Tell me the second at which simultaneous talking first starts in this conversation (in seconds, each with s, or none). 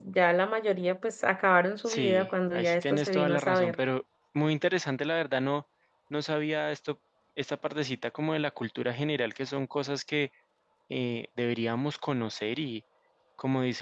1.9 s